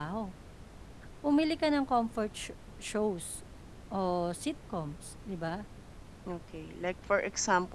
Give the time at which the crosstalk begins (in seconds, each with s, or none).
none